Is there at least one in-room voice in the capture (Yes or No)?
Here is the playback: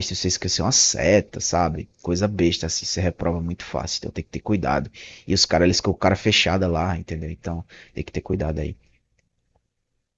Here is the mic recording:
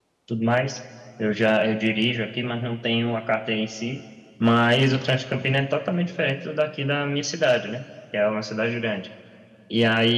Yes